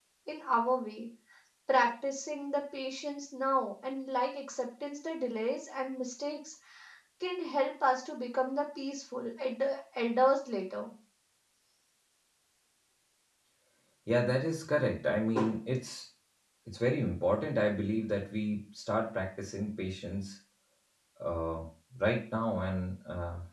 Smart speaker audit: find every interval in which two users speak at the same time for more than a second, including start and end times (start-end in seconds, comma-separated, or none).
none